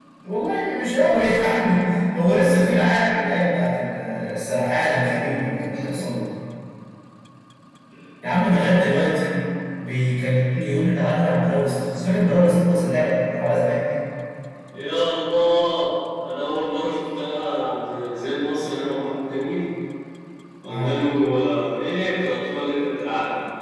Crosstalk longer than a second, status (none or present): none